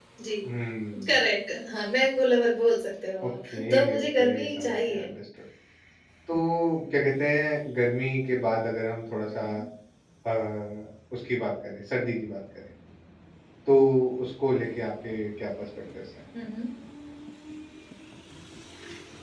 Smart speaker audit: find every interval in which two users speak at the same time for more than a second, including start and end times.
3.2-5.0

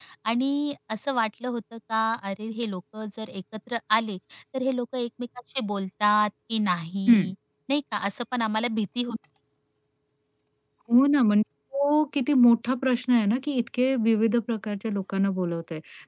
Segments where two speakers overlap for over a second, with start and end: none

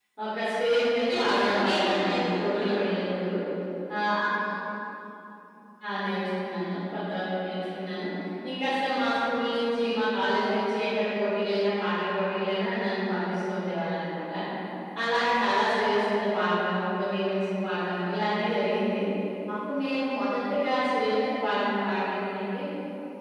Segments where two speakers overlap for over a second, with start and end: 1.0-2.8

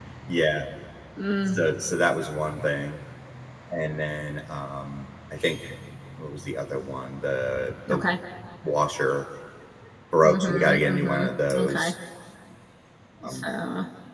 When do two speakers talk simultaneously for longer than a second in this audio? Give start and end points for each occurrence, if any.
10.2-11.9

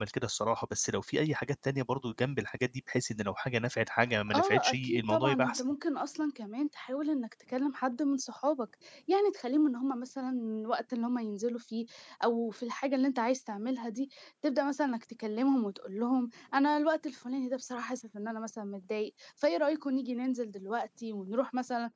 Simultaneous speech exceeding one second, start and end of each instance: 4.3-5.6

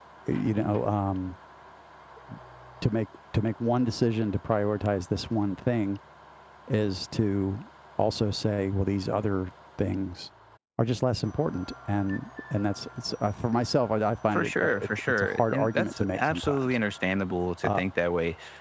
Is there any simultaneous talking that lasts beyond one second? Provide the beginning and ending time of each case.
14.3-16.7

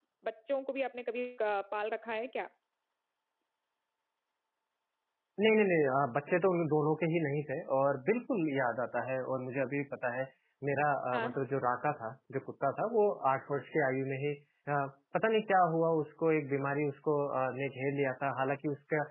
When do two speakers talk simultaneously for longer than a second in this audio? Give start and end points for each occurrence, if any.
none

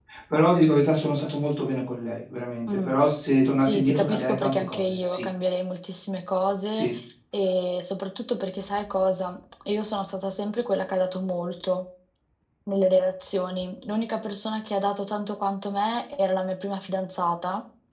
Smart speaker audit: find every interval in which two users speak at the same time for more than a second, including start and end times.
3.7-5.2

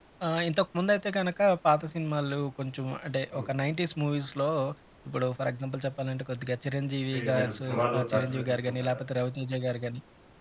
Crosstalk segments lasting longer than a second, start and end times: 7.1-9.0

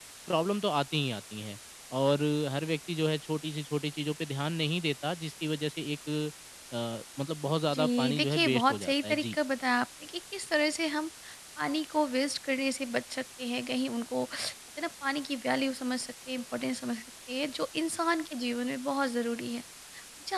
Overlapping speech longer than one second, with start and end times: 7.7-9.4

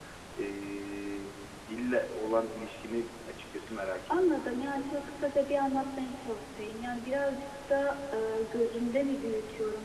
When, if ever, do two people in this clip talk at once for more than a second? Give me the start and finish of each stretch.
none

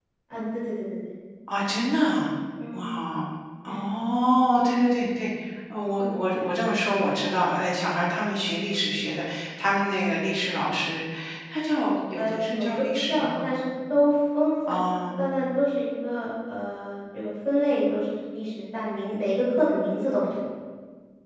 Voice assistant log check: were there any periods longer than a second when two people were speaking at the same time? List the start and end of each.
12.2-13.4

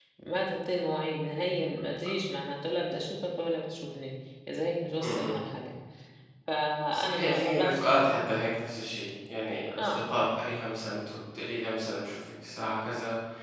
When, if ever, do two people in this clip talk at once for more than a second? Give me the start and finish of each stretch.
6.9-8.1

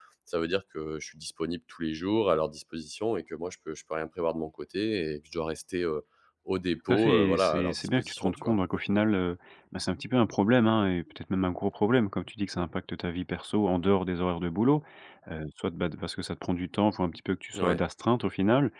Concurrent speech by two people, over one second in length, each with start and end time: 6.9-8.6

